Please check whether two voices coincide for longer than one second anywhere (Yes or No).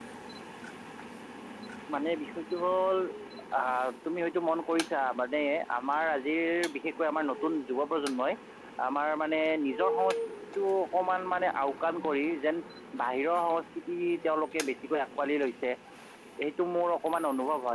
No